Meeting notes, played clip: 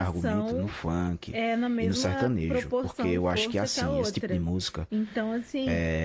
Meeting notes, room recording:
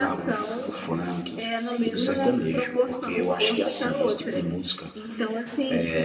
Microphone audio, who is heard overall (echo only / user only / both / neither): echo only